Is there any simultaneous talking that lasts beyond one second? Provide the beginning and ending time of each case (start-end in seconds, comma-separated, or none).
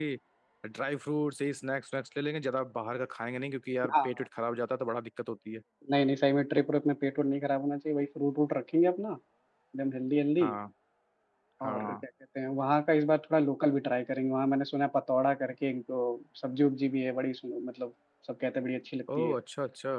none